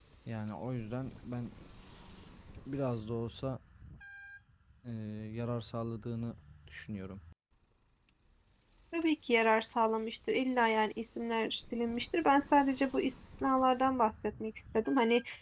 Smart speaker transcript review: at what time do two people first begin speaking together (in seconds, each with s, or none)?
none